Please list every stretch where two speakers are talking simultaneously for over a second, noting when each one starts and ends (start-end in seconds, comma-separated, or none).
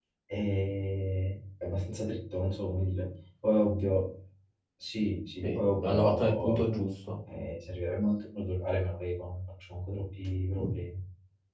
5.4-6.7